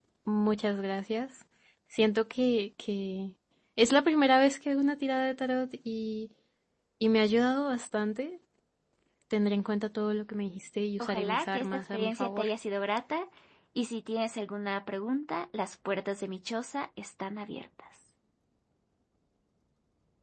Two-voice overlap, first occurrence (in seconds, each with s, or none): 11.0 s